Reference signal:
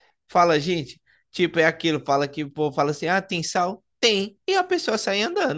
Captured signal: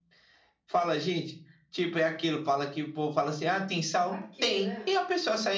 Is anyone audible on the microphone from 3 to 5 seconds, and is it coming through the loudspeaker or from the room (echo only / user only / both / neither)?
both